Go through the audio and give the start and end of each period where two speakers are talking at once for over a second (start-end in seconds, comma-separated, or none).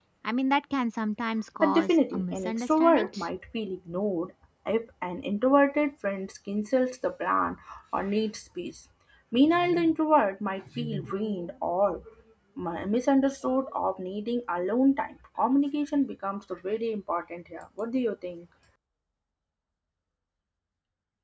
1.6-3.1